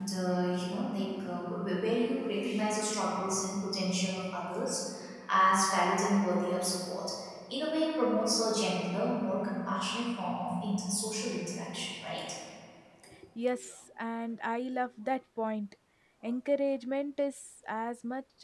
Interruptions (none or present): none